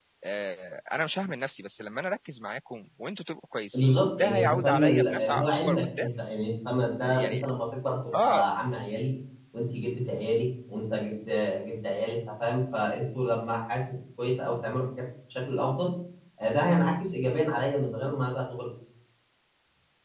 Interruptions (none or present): present